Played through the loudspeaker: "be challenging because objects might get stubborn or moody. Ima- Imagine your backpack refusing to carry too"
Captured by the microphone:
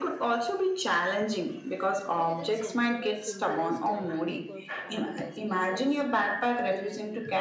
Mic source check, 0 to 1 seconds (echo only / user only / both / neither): echo only